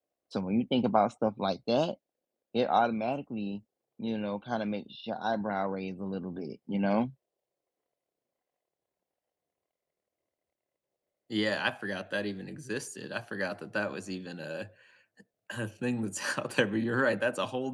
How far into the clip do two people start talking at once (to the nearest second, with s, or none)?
none